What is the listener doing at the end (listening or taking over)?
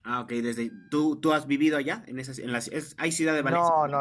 taking over